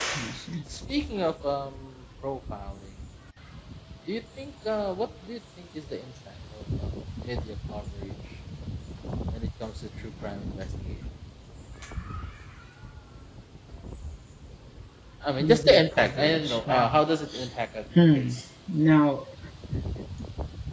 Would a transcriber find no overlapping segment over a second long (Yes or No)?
No